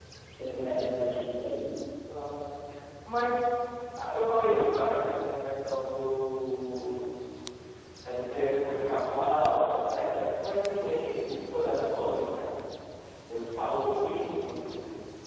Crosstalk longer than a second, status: none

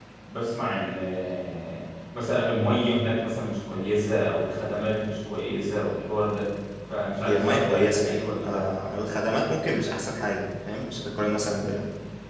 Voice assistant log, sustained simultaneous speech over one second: present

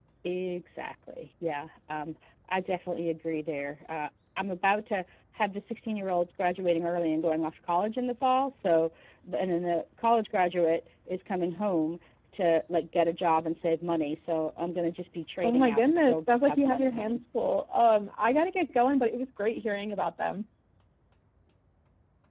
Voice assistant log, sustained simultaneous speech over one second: present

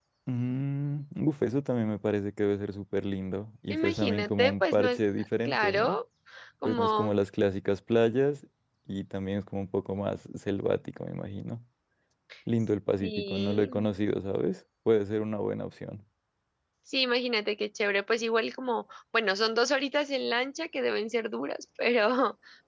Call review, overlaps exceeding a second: present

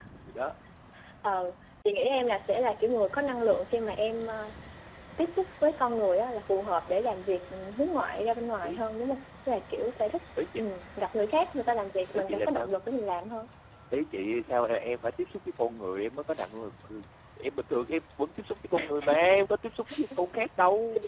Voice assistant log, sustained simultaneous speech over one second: none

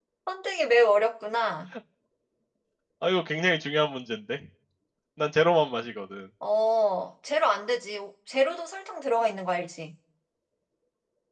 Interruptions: none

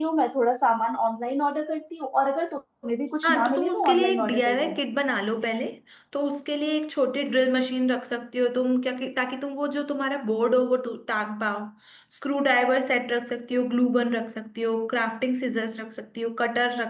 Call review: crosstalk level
present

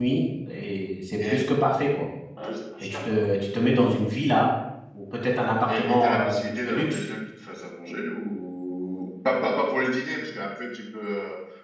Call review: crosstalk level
present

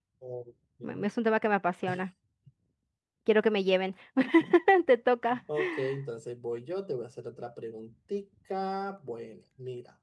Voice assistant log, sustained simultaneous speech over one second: none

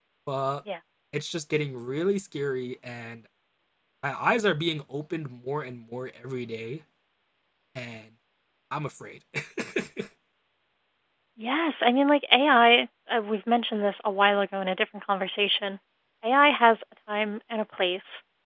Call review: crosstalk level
none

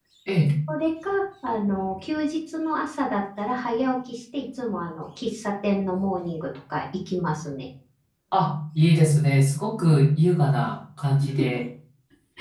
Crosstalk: none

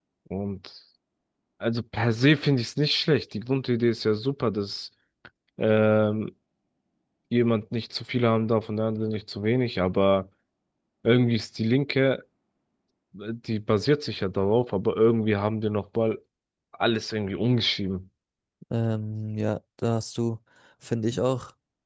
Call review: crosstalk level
none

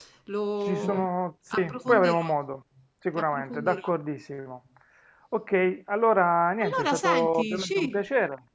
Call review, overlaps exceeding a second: present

